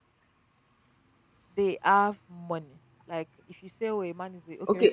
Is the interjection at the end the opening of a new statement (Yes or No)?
Yes